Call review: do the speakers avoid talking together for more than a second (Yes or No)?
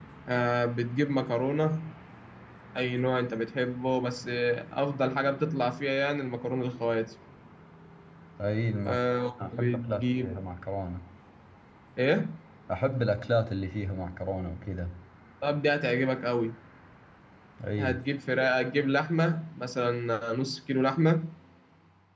No